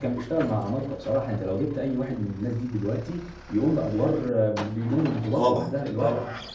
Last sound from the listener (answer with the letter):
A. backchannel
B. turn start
B